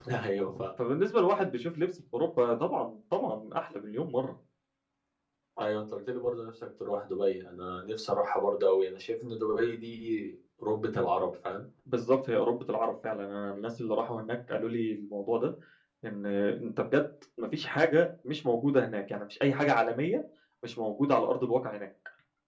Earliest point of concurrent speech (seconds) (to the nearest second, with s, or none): none